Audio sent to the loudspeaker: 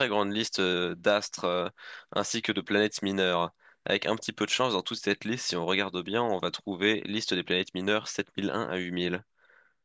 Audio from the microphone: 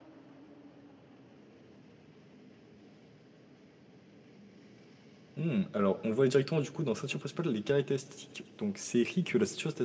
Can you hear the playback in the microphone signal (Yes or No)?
No